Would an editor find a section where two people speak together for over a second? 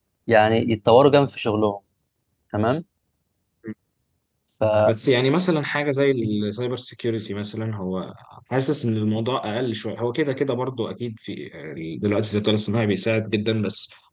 No

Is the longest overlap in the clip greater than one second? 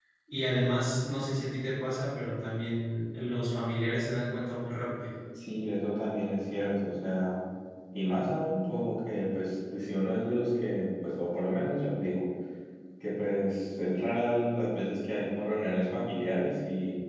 No

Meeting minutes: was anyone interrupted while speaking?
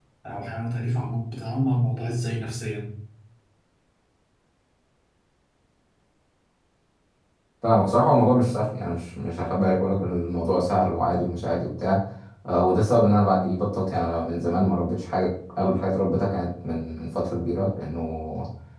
No

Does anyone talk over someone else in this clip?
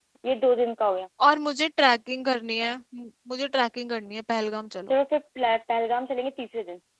No

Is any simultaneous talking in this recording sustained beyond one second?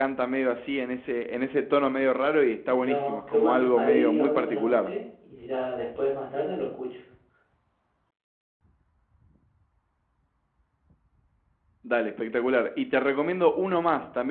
Yes, from 2.7 s

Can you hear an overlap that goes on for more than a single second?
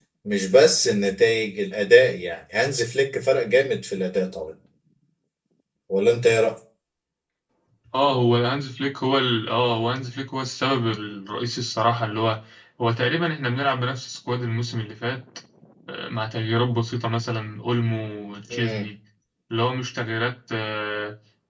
No

